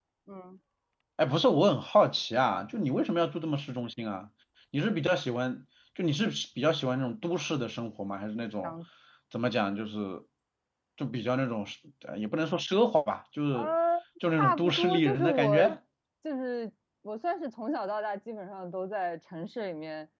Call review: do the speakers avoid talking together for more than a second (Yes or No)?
No